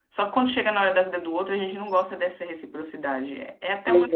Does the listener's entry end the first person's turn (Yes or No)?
No